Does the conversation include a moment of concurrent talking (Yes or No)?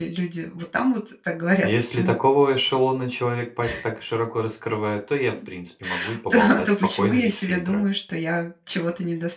Yes